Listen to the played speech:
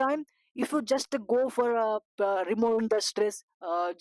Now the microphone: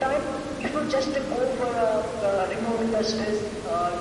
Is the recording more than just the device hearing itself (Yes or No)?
No